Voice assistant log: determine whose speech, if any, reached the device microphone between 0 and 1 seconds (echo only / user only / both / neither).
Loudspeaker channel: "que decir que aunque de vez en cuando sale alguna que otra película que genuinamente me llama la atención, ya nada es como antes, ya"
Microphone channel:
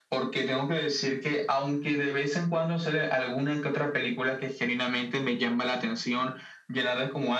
echo only